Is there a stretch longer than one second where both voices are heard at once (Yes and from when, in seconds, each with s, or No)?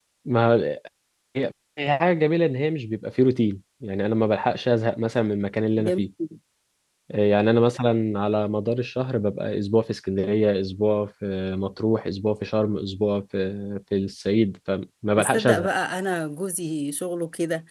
No